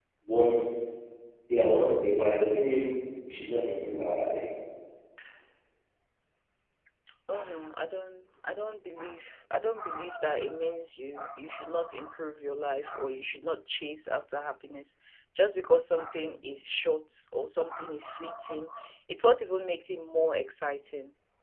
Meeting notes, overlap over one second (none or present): none